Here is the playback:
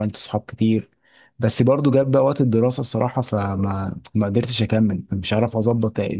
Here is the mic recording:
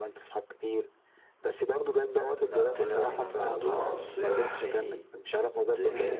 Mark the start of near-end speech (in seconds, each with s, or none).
2.4 s